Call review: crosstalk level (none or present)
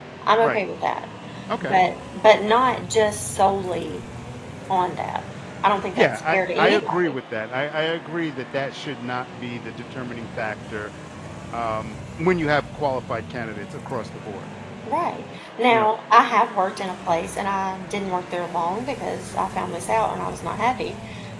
present